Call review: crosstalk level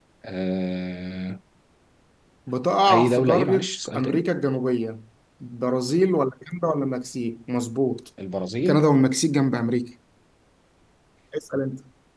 present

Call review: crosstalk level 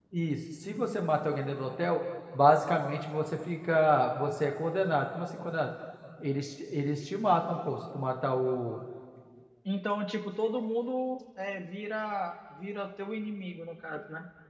none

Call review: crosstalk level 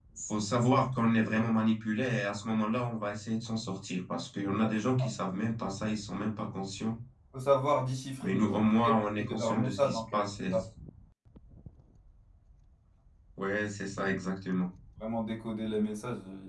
present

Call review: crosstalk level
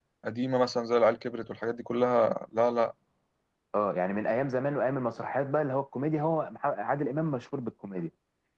none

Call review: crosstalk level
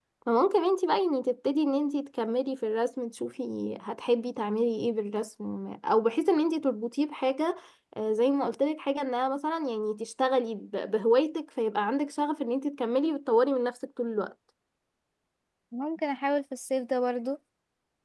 none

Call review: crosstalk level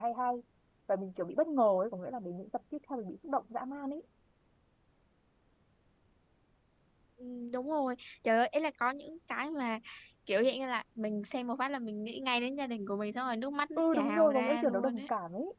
present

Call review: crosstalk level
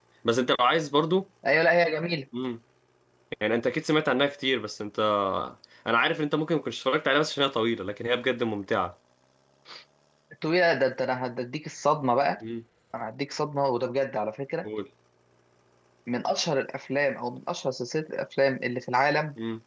none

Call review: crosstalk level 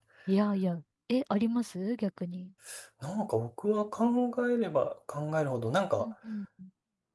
none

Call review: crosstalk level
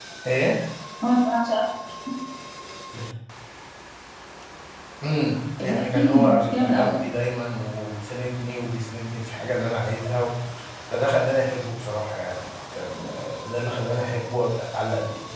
present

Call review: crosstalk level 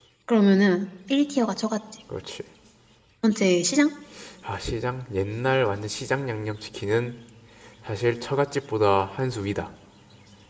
none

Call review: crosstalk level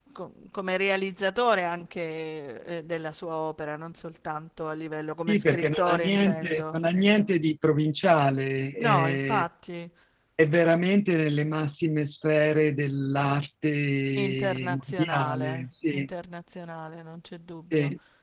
present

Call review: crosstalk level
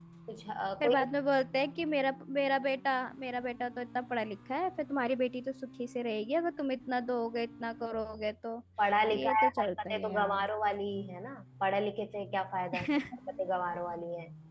present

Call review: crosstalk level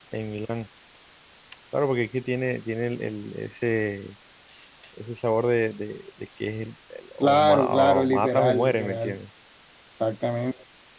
present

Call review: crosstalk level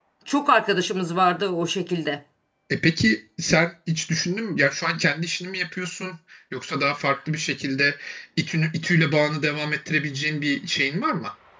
none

